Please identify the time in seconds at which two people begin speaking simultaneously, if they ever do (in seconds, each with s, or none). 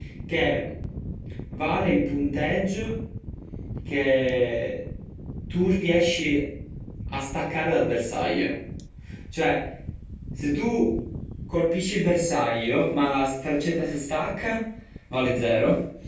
none